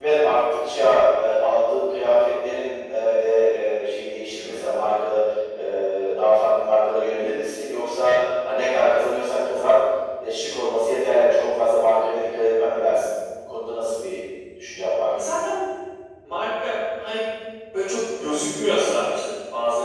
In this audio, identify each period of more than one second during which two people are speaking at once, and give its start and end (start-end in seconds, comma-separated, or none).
none